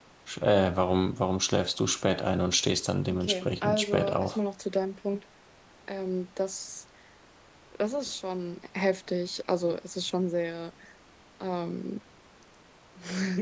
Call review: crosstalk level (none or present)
present